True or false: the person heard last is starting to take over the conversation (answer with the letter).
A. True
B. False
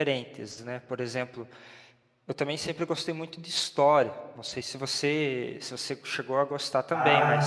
A